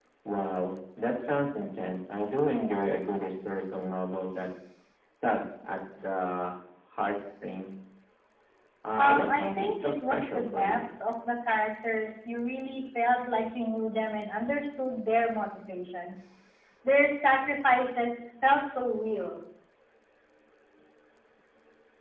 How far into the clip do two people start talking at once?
9.0 s

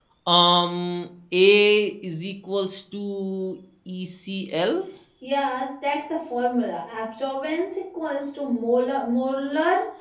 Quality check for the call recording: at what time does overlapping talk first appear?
none

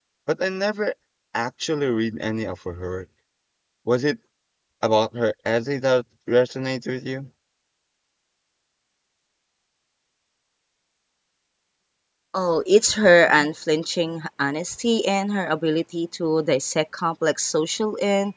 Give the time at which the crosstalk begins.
none

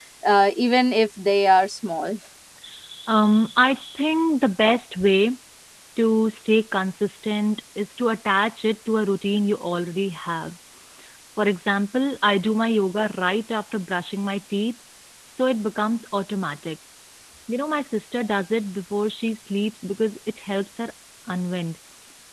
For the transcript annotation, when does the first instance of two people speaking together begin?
none

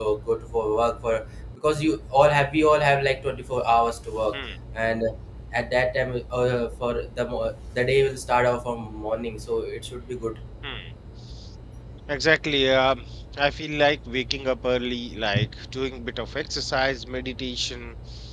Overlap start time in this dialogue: none

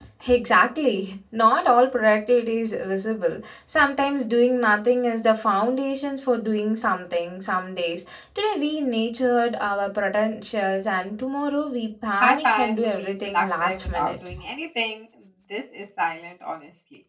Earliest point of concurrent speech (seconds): 12.2 s

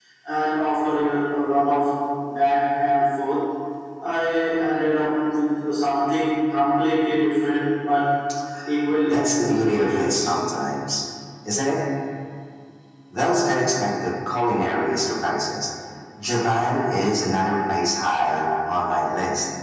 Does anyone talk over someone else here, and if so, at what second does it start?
9.1 s

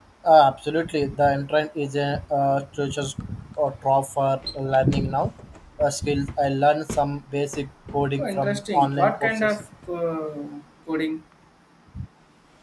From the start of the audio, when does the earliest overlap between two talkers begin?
8.2 s

